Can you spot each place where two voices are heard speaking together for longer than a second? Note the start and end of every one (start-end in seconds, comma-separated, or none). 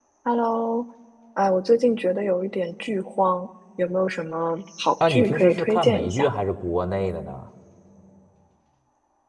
5.0-6.3